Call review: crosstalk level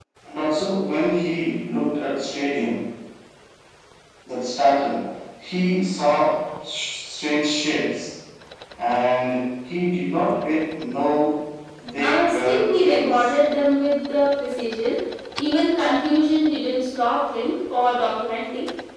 present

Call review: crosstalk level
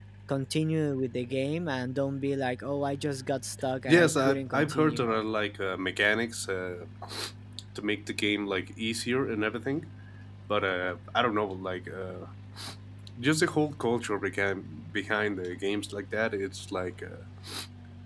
present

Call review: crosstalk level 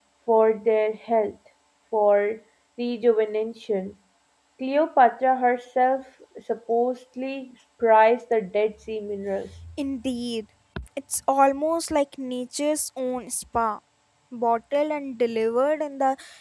none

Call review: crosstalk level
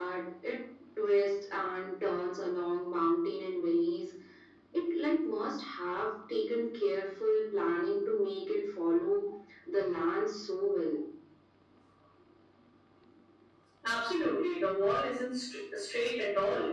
none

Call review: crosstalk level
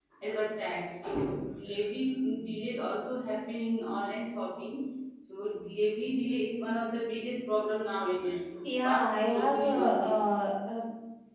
present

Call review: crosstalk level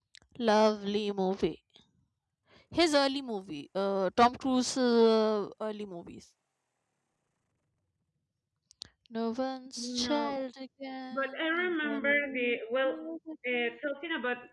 present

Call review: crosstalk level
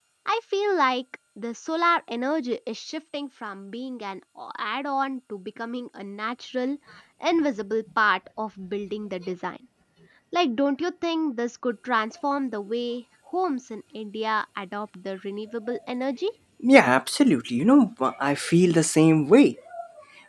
none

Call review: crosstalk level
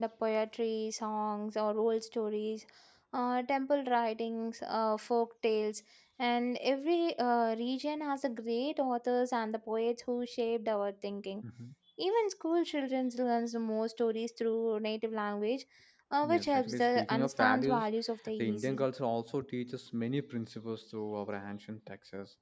present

